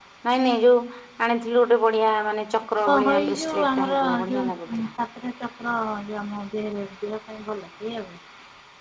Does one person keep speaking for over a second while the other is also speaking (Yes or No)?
Yes